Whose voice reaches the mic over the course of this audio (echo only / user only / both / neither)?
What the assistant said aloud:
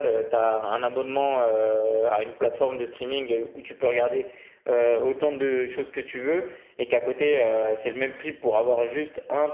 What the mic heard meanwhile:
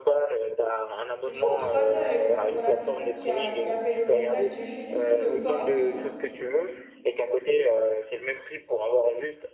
both